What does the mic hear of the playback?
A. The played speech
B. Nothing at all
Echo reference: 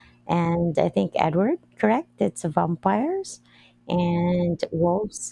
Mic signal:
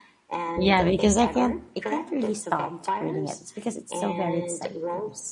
A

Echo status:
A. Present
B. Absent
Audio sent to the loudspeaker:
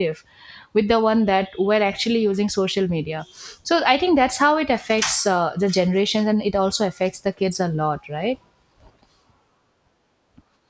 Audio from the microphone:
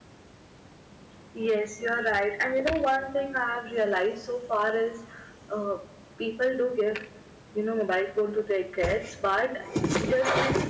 B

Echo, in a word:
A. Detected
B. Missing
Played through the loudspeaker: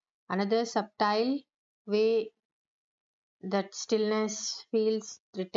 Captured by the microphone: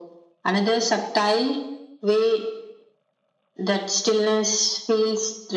A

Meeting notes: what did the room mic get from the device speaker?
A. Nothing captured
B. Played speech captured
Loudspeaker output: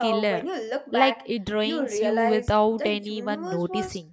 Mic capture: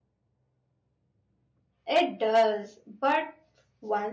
A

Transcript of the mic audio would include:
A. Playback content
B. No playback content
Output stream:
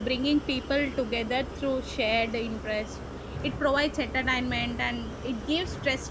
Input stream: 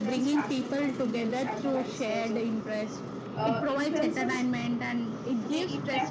A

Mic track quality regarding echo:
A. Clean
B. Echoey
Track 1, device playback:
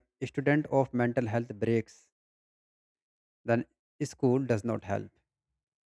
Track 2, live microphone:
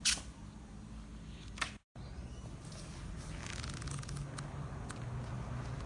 A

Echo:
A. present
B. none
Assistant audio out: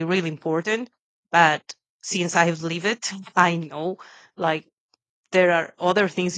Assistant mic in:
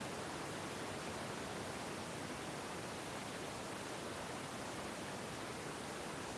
B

